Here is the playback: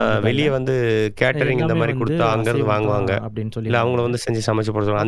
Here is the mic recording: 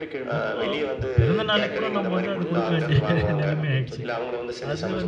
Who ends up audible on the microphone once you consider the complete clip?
both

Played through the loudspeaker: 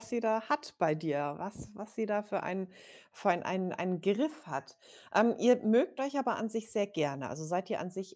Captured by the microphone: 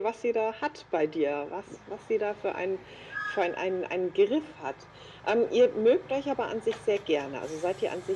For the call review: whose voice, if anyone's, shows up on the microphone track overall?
echo only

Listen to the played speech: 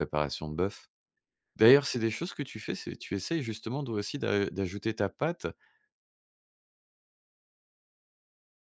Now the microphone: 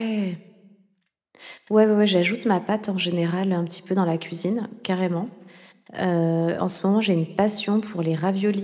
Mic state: user only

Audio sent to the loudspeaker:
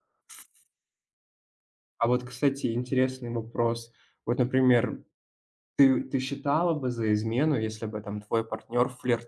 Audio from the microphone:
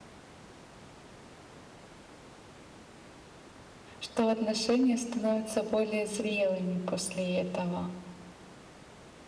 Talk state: user only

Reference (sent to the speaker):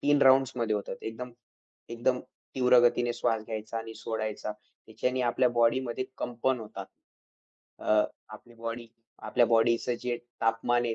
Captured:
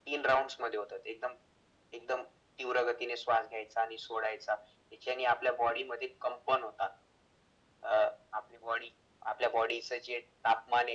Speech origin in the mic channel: echo only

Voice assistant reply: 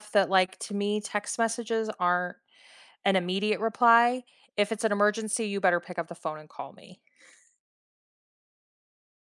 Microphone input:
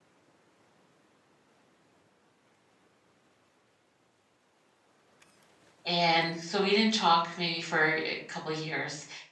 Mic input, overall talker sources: user only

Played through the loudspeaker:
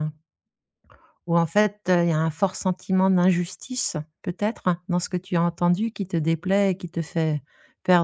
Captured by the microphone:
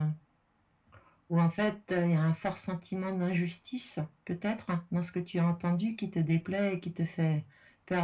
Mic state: echo only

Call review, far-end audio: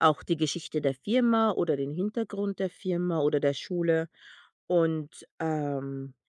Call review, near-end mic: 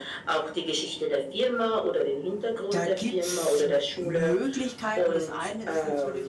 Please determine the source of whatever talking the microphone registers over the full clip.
both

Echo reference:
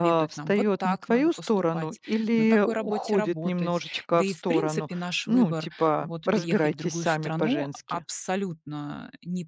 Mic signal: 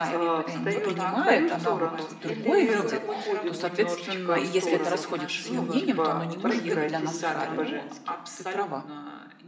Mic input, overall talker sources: both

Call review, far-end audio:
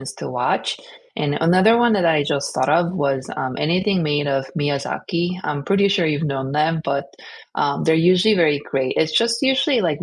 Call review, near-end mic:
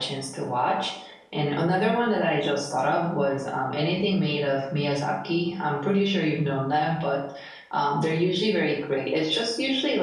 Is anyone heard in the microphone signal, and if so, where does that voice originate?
echo only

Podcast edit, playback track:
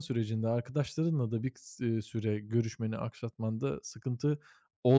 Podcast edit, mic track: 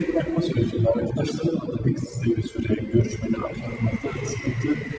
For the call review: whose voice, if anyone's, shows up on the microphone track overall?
echo only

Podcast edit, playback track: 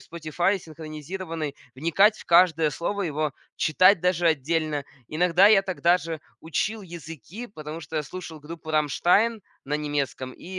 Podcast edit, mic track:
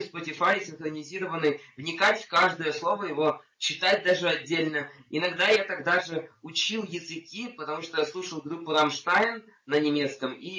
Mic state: echo only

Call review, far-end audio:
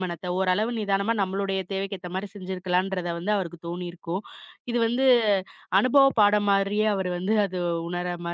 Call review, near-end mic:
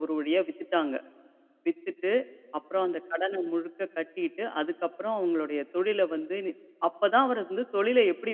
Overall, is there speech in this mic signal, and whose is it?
user only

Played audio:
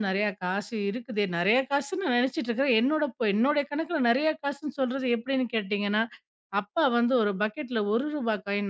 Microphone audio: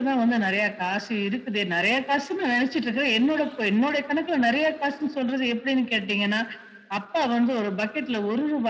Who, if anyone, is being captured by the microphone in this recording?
echo only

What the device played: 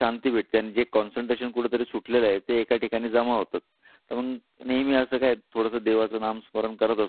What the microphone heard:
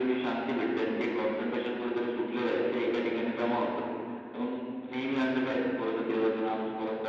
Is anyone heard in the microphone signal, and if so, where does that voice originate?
echo only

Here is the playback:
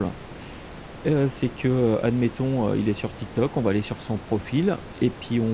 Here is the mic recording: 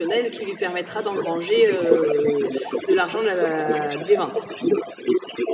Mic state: both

